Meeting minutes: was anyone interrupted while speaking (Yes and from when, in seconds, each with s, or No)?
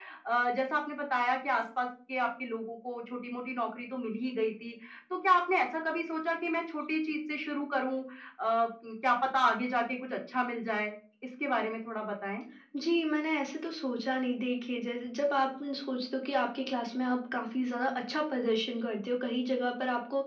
No